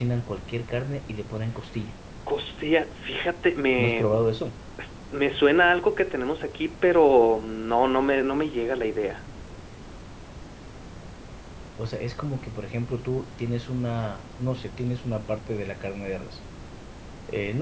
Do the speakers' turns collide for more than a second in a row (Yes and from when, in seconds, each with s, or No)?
No